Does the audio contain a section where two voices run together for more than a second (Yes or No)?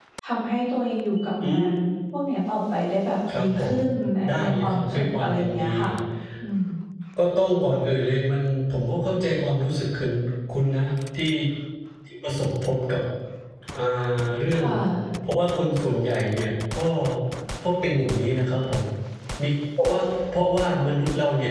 Yes